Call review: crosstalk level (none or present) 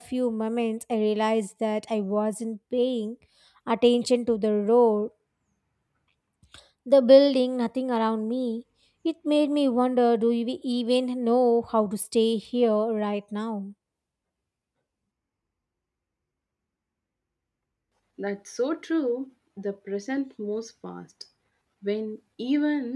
none